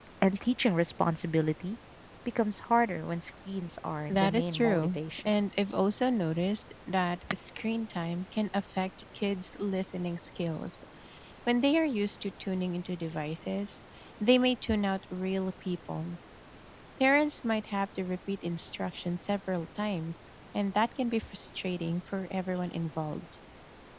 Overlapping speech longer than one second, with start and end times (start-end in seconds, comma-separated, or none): 4.1-5.3